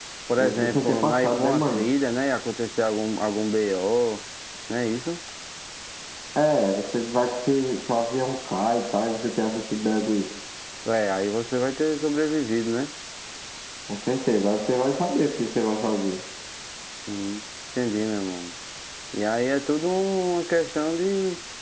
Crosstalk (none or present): present